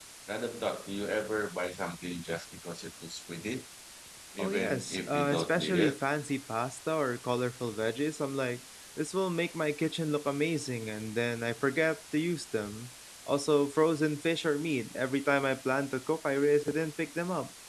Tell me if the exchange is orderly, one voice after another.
No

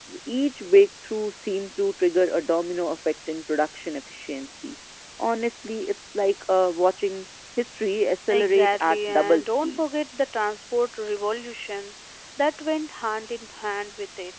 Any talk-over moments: Yes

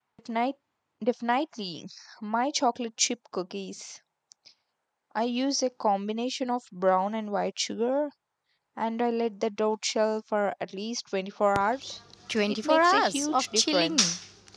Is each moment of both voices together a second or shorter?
No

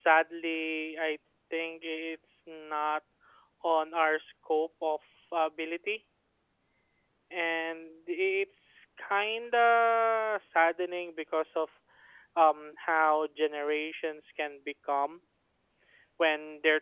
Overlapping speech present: No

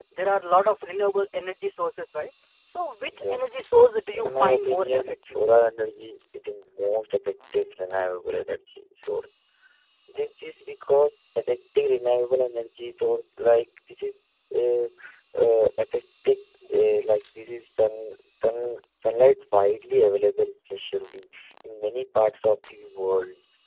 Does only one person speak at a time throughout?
No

